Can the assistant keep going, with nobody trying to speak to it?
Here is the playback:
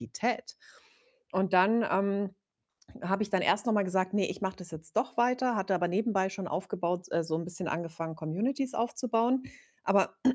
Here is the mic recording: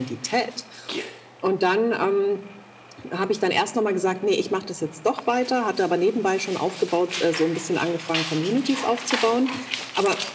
Yes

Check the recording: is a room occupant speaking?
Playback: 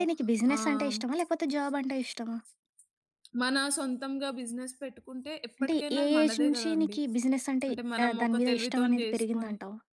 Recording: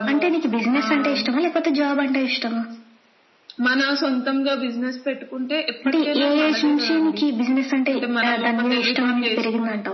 No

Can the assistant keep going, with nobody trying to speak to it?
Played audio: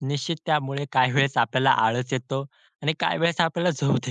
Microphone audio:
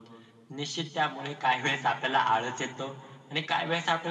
Yes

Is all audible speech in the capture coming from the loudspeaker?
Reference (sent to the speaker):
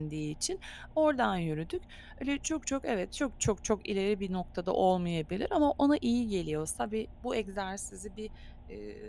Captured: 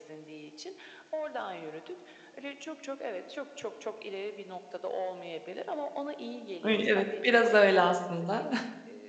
No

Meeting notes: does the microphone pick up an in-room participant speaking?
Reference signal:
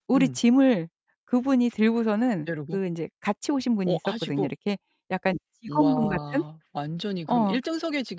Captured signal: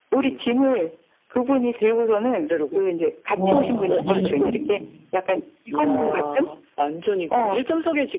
Yes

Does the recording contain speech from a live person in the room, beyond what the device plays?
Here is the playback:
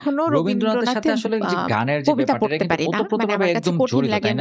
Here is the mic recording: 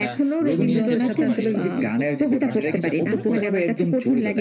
Yes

